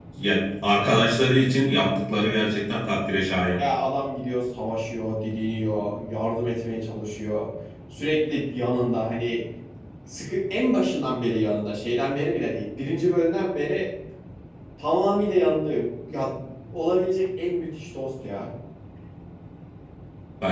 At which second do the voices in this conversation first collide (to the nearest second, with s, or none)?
none